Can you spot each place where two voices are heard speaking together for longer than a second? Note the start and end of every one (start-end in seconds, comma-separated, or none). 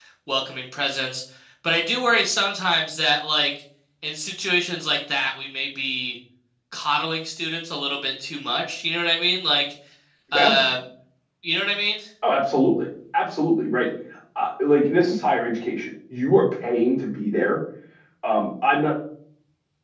none